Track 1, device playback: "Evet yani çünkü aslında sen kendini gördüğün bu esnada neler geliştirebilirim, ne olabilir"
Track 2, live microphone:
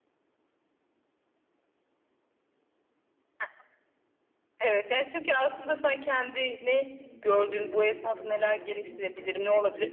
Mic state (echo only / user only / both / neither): both